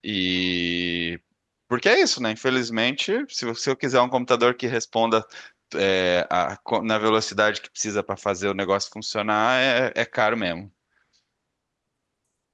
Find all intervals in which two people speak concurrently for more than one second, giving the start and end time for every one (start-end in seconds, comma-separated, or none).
none